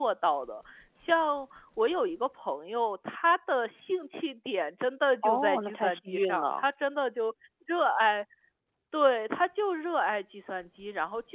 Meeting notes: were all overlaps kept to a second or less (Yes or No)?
No